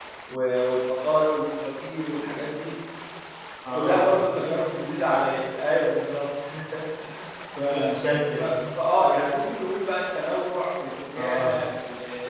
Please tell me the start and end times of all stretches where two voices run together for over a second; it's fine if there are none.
none

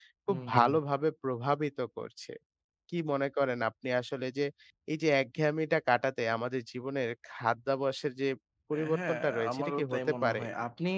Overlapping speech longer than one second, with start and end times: 8.9-10.4

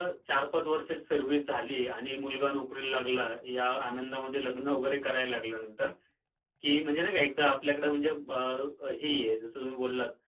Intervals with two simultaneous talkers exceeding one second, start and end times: none

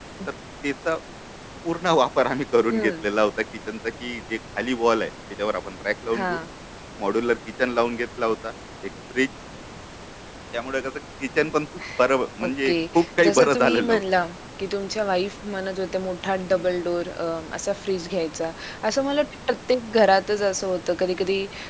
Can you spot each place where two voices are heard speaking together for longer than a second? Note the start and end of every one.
12.4-14.0

